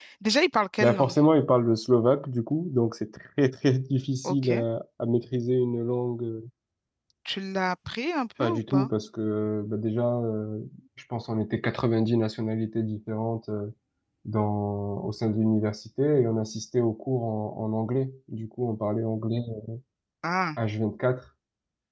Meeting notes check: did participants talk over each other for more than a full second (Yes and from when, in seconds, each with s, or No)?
No